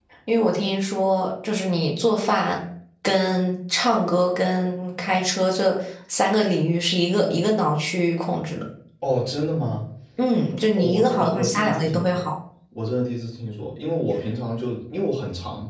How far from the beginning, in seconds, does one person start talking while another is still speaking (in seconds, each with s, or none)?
10.8 s